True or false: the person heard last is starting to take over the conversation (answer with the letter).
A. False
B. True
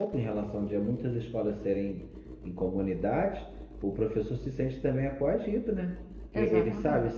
A